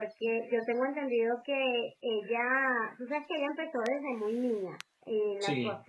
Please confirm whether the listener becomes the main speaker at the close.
No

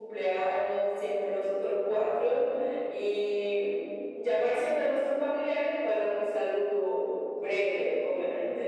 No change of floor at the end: No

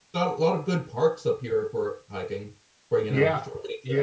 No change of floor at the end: No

